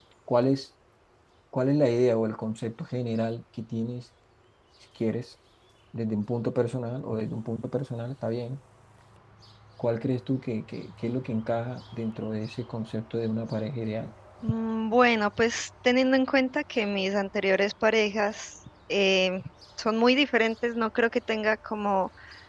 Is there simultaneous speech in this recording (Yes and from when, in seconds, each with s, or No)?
No